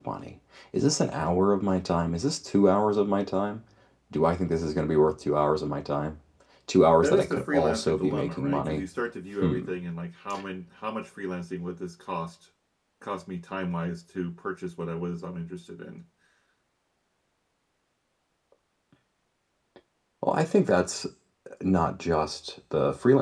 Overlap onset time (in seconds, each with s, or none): 7.0 s